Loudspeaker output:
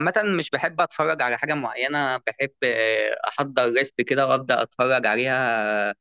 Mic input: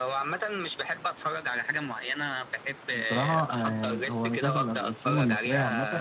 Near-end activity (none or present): present